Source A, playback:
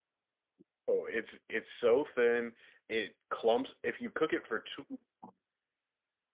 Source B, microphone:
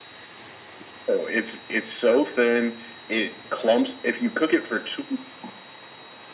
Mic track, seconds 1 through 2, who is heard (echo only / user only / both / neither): echo only